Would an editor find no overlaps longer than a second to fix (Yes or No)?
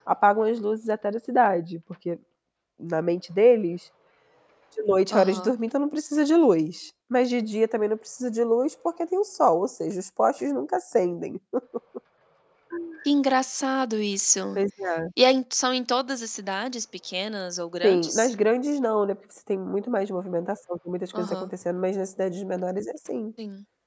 Yes